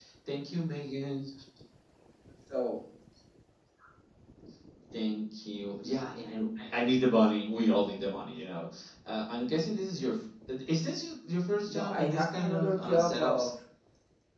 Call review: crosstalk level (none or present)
present